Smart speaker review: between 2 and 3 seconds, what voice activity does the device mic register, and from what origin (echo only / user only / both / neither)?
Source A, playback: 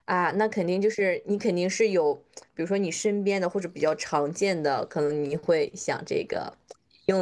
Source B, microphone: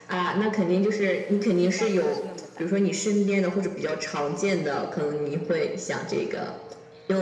both